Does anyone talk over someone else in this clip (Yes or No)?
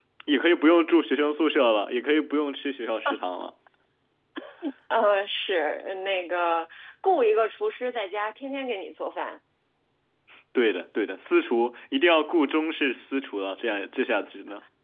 No